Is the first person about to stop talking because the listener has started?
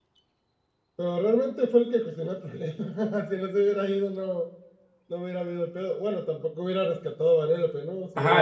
Yes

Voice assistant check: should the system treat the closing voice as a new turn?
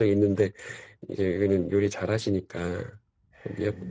No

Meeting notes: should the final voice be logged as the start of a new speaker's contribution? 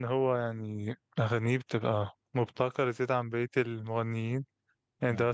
No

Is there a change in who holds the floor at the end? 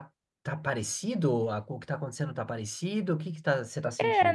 Yes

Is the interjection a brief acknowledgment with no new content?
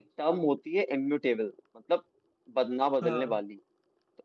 Yes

